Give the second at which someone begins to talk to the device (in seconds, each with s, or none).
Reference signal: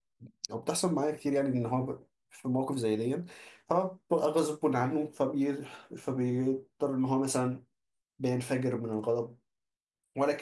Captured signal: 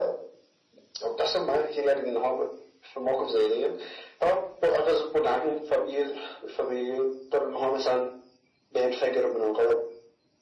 none